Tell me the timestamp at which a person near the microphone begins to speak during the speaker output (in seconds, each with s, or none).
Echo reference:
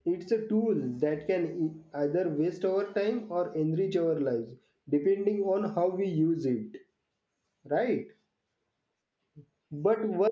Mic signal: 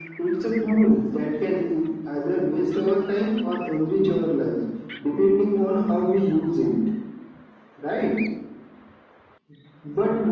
none